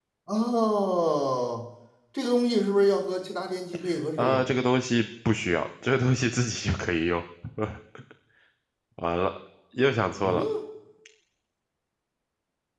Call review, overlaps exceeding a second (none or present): none